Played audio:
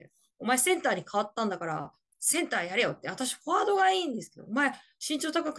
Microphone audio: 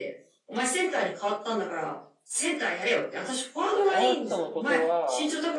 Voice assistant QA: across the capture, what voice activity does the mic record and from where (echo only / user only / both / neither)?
both